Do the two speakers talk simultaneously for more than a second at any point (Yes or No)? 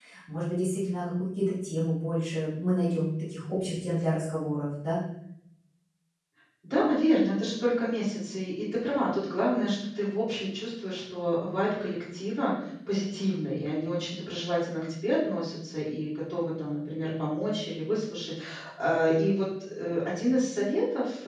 No